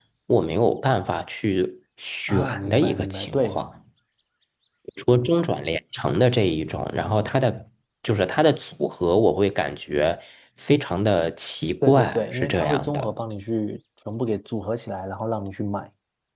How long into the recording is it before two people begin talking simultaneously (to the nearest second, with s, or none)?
2 s